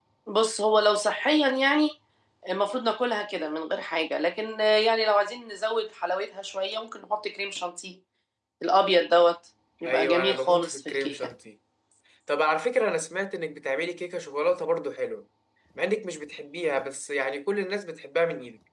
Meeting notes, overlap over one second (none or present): present